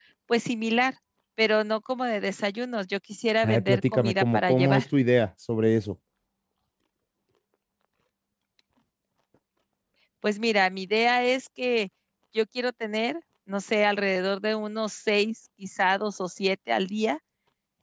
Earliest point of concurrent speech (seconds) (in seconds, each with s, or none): 3.4 s